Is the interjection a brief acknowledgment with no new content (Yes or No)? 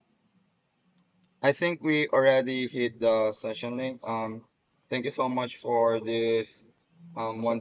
Yes